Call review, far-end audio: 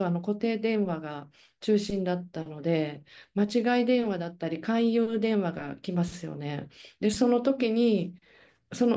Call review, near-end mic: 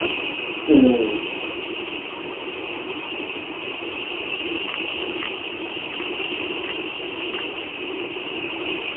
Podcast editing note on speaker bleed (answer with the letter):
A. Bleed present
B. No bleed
B